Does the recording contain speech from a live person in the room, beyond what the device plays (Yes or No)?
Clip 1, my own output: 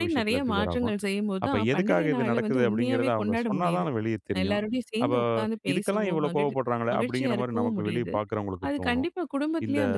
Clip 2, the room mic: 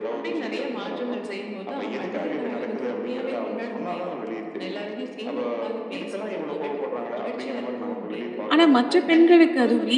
Yes